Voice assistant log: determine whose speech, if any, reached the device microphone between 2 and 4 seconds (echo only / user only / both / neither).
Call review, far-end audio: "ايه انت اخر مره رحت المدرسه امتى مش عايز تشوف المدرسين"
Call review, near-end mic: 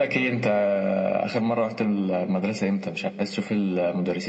echo only